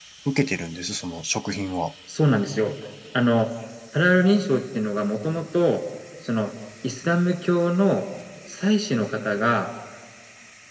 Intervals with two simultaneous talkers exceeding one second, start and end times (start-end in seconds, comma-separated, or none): none